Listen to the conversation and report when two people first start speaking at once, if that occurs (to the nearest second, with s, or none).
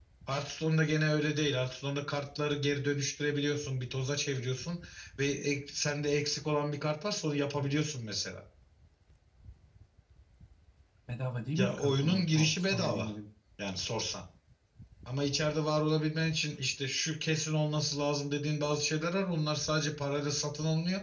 12 s